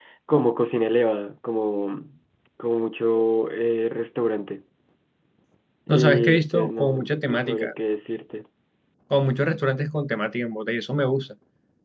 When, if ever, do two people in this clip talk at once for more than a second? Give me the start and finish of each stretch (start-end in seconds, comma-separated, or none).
5.9-7.7